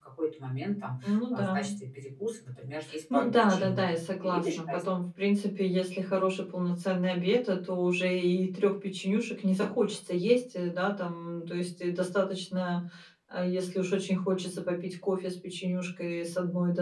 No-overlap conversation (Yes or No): No